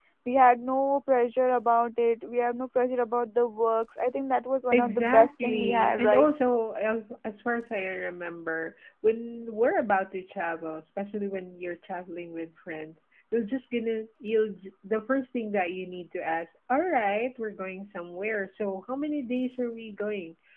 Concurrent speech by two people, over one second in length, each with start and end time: 4.7-6.3

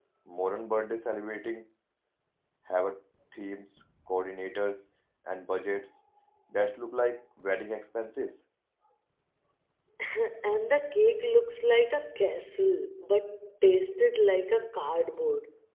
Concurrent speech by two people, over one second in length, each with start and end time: none

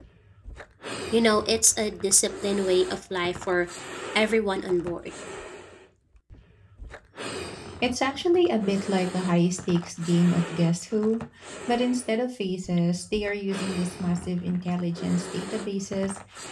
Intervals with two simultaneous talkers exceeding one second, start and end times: none

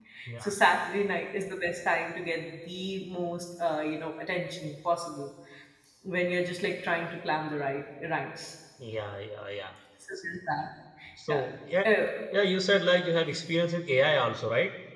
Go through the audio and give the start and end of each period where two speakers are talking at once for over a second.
none

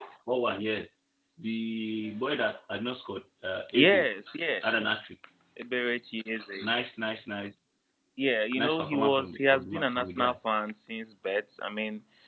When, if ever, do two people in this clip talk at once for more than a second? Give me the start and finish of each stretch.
8.6-10.3

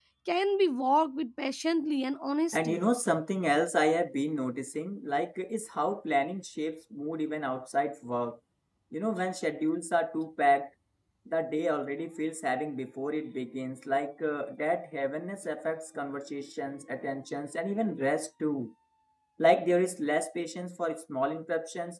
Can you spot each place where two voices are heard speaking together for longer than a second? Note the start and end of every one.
none

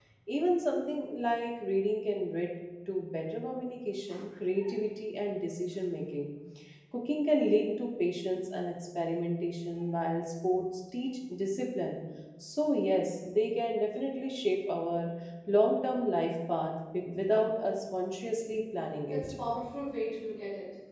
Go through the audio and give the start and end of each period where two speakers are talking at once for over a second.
none

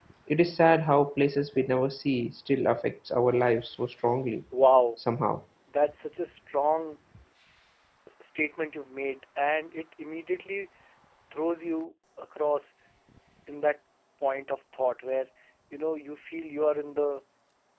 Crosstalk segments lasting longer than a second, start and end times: none

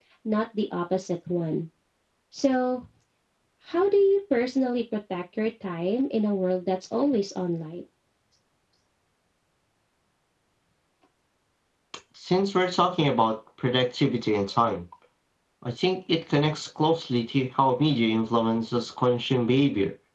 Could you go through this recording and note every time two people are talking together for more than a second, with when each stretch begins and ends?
none

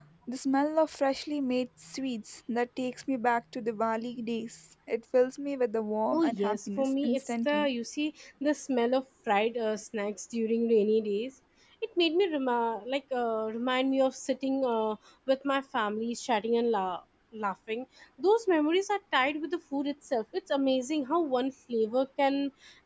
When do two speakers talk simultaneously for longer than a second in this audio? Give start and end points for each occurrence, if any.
6.1-7.7

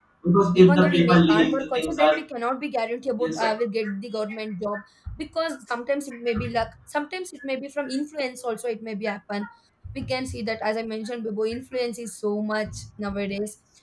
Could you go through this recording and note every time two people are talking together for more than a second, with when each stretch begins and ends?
0.5-2.1

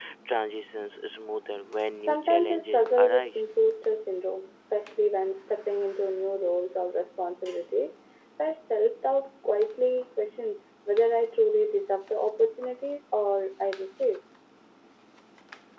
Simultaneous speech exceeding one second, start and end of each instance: 2.0-3.3

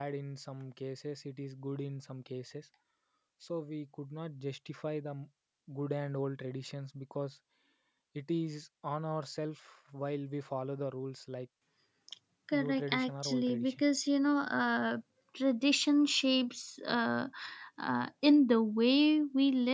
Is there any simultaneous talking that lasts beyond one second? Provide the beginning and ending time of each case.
12.5-13.8

